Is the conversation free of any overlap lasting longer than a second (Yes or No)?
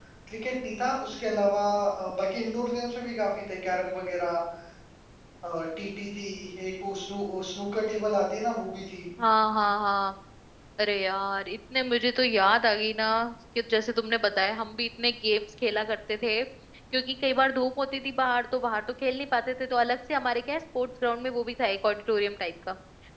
Yes